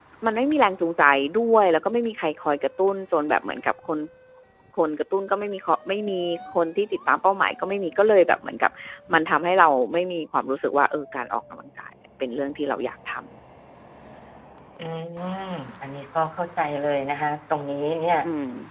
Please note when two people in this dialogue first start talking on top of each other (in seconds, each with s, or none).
none